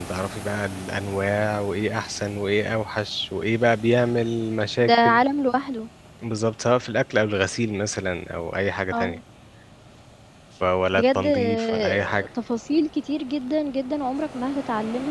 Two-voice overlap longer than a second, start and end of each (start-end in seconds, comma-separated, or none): 11.0-12.3